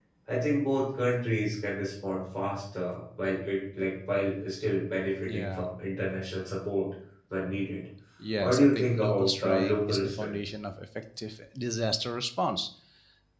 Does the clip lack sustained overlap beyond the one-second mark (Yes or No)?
No